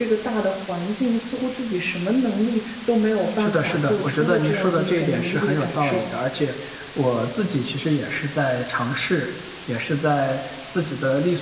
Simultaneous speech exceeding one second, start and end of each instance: 3.4-6.0

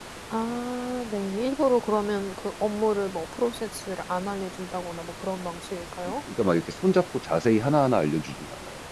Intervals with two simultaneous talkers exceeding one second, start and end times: none

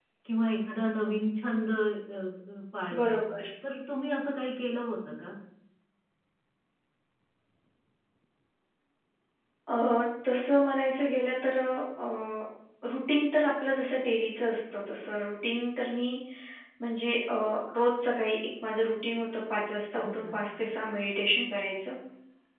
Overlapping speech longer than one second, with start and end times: none

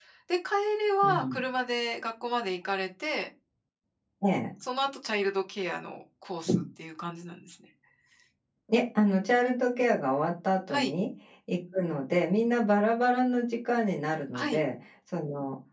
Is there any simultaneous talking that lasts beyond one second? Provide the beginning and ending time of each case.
none

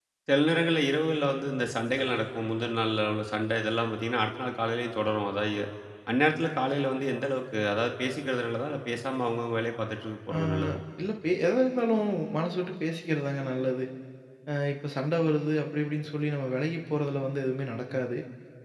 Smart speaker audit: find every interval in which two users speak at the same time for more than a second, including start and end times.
none

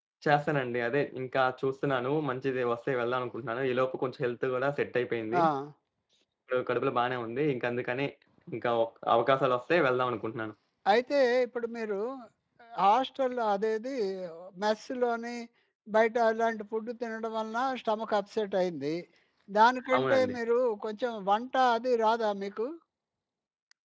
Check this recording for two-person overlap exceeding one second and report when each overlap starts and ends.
none

